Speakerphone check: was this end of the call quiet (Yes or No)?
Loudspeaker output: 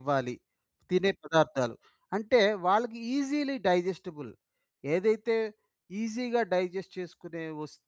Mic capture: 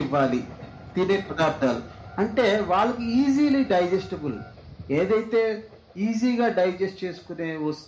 Yes